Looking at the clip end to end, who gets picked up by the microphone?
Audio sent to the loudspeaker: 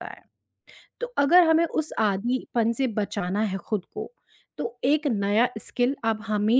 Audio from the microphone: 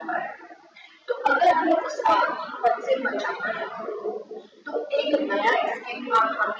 echo only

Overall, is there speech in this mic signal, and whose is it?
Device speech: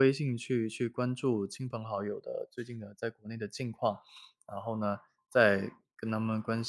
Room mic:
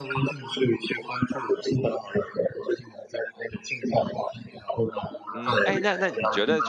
both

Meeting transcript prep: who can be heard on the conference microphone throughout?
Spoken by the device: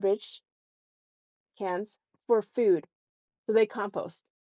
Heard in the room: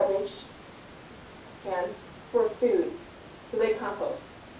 echo only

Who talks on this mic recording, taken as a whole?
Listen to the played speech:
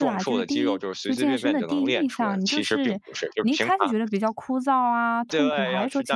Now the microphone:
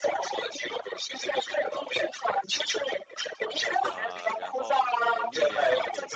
both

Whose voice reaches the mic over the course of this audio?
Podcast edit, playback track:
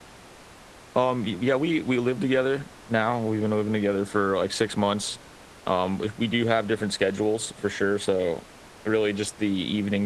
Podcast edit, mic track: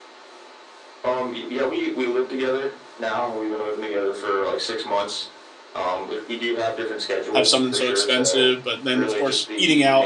both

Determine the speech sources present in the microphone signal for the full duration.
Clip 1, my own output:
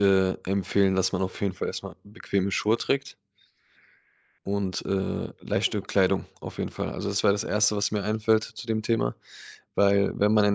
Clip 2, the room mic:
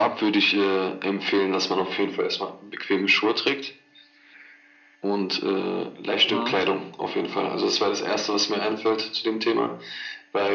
both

